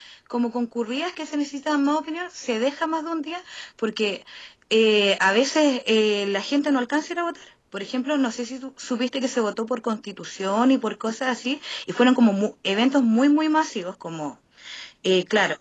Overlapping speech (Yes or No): No